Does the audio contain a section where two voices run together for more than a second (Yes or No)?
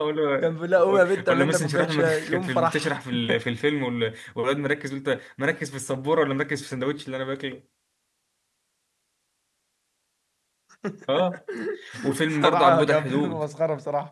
Yes